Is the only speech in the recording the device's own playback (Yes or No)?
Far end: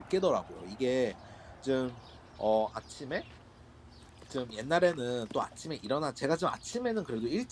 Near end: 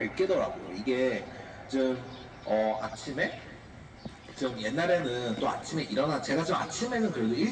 Yes